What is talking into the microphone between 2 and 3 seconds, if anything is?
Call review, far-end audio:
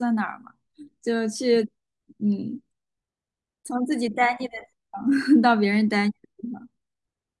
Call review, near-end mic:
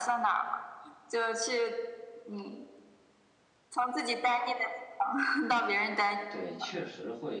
echo only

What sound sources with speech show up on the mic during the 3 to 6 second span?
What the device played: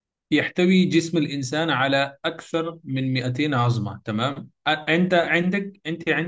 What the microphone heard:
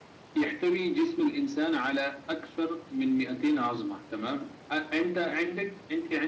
echo only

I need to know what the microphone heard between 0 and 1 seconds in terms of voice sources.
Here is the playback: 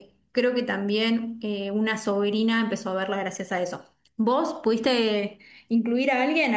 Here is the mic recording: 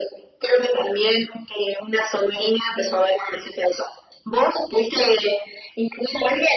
echo only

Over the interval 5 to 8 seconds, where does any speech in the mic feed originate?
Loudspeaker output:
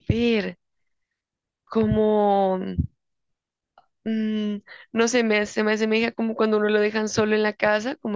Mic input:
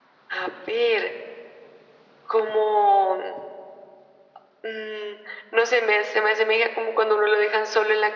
echo only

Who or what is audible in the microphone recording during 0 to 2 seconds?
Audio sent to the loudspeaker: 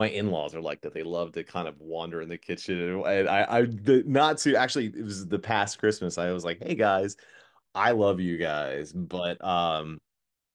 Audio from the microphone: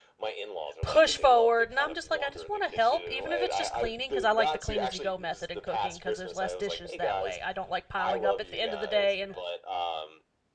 both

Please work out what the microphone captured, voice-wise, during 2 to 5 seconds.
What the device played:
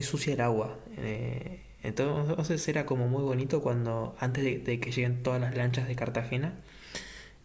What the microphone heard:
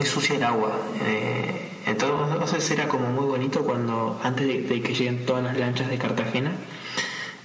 echo only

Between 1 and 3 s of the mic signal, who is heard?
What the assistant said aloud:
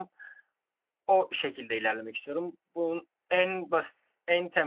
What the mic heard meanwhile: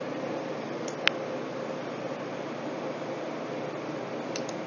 neither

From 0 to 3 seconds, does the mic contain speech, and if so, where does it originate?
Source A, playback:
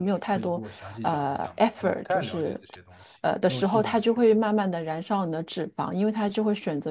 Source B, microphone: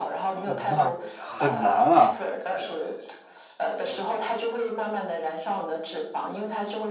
both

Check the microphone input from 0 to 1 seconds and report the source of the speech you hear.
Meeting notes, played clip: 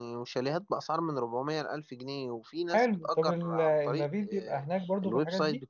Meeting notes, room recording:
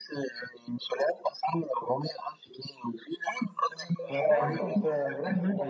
echo only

